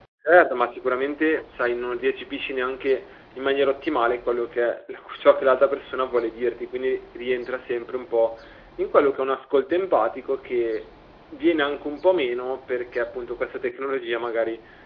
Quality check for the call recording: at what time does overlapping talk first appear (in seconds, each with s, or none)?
none